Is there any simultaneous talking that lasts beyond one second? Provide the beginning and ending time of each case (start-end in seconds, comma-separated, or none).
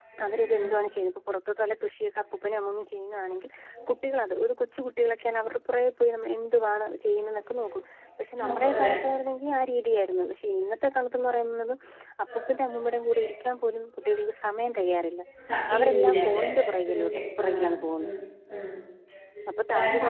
15.8-18.1